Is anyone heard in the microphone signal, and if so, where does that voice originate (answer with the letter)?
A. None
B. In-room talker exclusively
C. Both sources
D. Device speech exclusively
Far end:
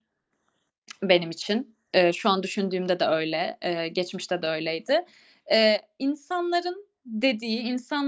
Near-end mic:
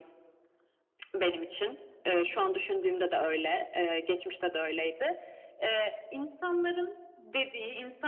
D